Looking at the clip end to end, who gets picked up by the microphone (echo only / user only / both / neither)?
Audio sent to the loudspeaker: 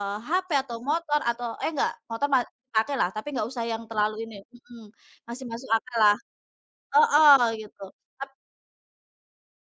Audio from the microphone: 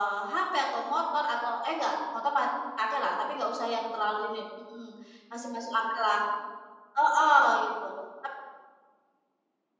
echo only